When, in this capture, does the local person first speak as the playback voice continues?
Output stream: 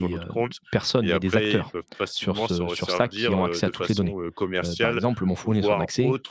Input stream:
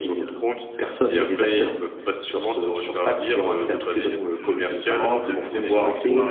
4 s

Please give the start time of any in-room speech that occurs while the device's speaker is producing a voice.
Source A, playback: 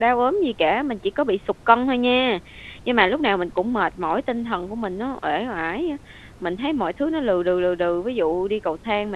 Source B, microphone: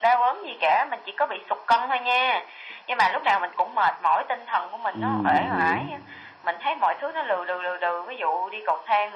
5 s

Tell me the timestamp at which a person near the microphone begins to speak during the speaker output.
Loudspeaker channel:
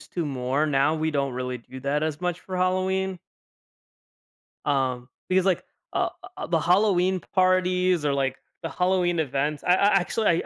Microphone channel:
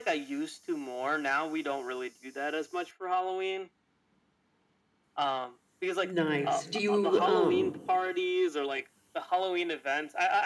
6 s

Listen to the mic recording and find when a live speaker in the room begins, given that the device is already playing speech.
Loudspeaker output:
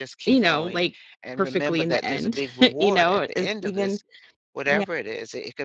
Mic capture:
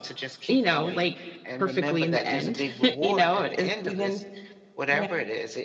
none

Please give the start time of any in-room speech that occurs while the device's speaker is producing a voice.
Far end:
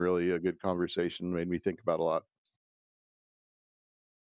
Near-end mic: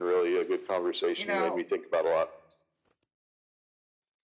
1 s

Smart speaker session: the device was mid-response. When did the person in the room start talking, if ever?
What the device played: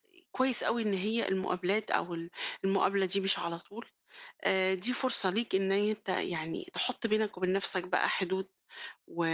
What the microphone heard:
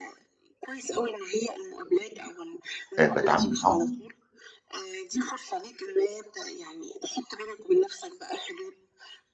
3 s

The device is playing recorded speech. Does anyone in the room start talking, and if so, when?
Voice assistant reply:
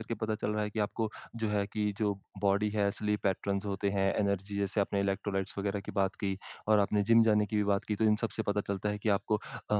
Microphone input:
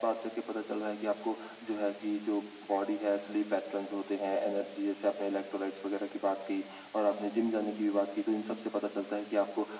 none

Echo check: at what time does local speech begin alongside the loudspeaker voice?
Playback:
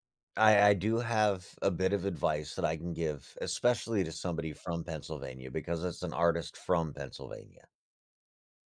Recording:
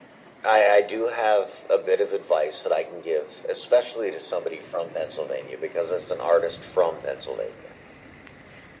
none

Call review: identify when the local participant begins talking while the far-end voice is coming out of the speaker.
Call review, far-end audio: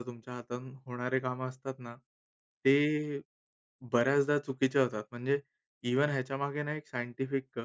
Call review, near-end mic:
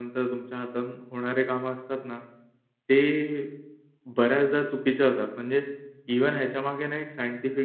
none

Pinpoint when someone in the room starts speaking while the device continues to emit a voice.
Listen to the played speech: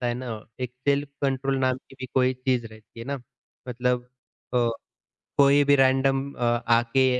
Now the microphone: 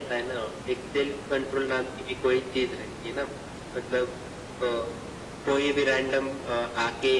none

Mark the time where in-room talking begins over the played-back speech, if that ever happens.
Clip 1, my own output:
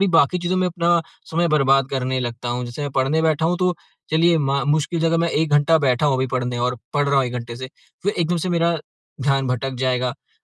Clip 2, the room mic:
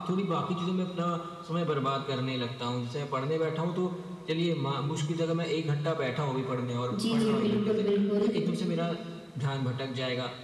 7 s

